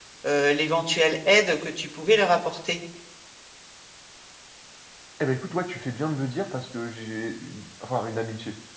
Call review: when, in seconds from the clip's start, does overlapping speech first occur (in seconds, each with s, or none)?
none